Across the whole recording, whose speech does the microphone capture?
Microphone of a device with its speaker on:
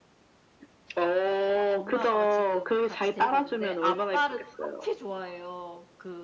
both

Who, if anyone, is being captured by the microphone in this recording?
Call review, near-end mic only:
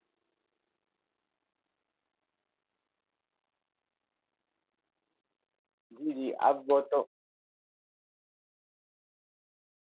user only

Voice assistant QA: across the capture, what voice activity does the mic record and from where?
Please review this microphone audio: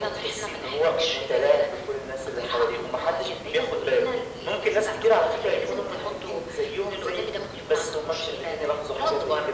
echo only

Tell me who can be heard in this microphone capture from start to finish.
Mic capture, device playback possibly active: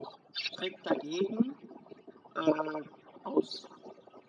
echo only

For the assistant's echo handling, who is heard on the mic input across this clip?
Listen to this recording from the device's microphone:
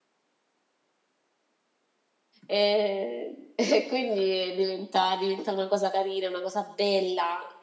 user only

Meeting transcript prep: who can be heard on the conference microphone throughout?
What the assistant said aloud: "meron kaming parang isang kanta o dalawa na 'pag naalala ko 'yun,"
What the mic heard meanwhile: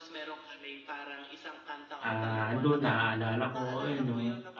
both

